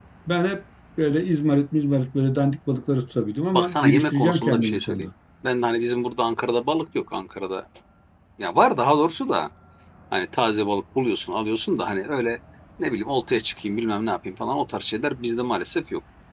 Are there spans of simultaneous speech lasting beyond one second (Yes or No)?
Yes